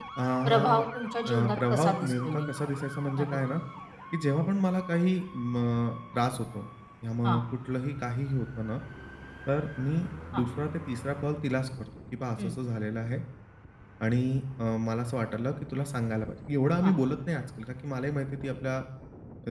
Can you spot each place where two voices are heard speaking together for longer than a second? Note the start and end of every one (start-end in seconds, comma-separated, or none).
1.3-2.5